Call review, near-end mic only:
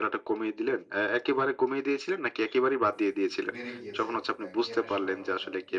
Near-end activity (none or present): present